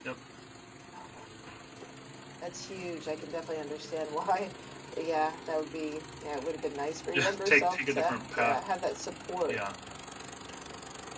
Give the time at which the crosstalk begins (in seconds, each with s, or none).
7.1 s